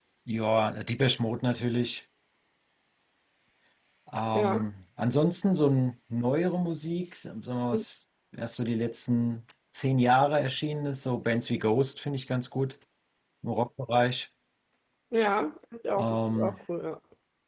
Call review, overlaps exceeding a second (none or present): none